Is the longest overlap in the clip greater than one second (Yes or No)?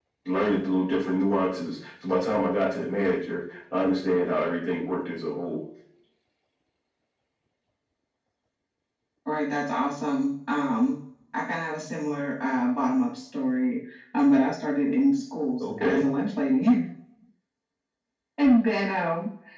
No